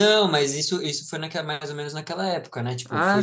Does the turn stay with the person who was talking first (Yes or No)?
No